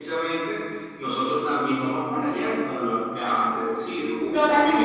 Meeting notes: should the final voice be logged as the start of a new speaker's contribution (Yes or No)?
Yes